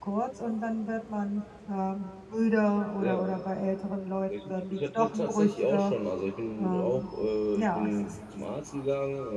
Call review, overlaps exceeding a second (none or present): present